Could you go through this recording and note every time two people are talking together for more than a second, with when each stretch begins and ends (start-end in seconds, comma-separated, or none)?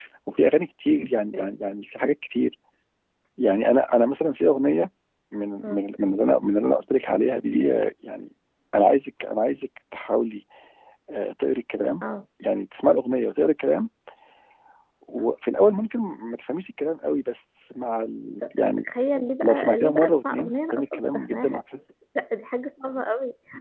19.4-21.6